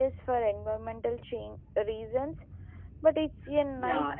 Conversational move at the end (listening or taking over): taking over